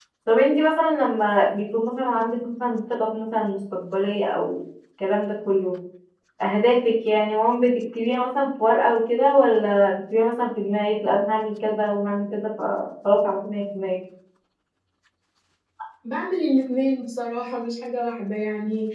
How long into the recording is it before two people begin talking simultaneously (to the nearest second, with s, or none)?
none